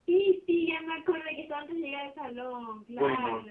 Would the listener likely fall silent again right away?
No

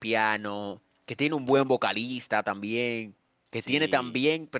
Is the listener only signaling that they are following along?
Yes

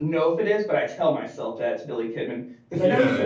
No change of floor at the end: No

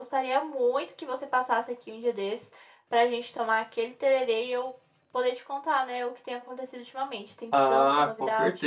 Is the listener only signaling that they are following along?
No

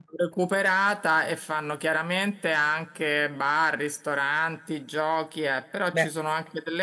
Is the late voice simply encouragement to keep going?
Yes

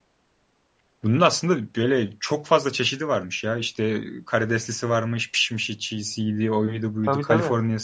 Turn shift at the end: No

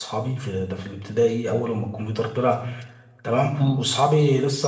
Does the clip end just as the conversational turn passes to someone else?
No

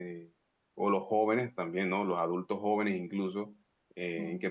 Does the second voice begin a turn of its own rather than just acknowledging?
No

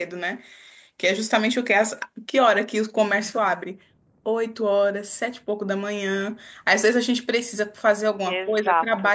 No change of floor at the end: Yes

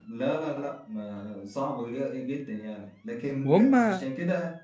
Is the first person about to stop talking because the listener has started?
No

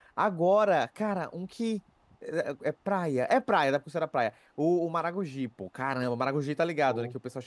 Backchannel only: Yes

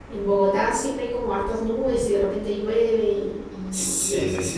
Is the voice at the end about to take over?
Yes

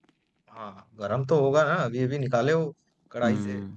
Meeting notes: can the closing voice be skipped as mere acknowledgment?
No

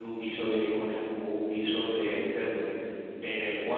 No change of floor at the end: Yes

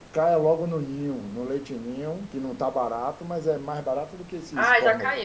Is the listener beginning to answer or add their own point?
Yes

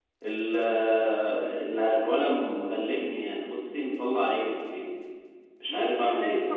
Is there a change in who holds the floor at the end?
Yes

